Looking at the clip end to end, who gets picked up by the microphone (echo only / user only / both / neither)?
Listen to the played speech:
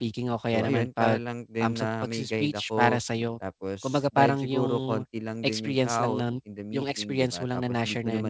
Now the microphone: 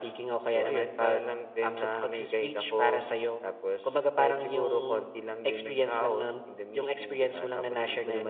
echo only